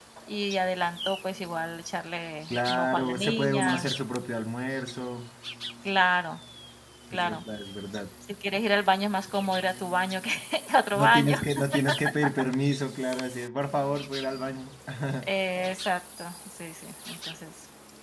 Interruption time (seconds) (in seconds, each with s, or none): 2.7 s